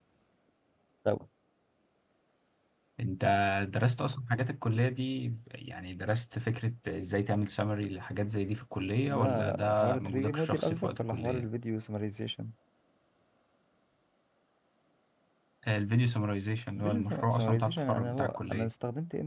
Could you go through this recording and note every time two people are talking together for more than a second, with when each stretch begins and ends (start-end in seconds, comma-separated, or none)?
9.1-11.5, 16.8-18.7